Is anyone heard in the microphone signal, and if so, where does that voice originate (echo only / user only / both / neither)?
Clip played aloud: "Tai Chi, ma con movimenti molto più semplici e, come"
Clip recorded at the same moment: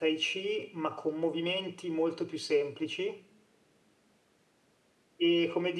echo only